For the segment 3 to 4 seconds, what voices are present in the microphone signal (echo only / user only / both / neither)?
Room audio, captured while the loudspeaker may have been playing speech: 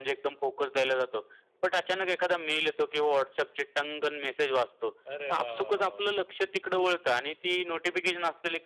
echo only